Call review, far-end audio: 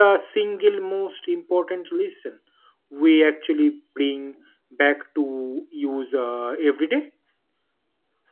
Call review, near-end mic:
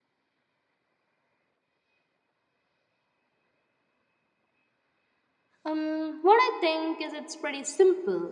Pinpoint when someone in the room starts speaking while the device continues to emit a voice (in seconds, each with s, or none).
5.6 s